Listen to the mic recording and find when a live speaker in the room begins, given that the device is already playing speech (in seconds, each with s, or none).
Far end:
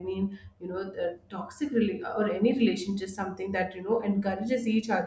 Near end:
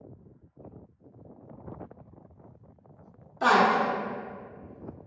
3.4 s